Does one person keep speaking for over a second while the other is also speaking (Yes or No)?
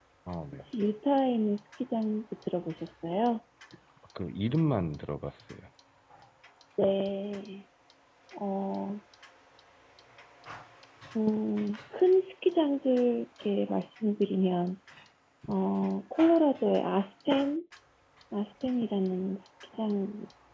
No